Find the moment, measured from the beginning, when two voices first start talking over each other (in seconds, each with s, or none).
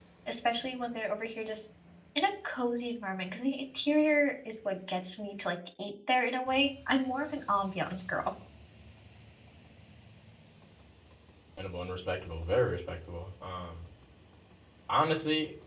none